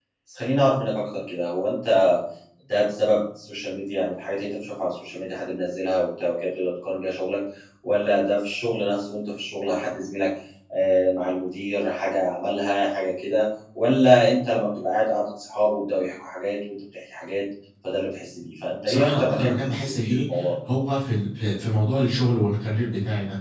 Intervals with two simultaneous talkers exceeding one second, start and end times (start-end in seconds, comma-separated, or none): 18.9-20.2